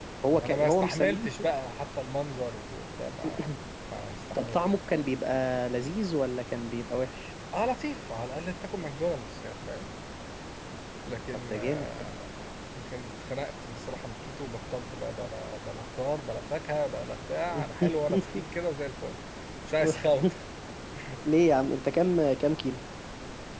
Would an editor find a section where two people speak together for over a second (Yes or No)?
Yes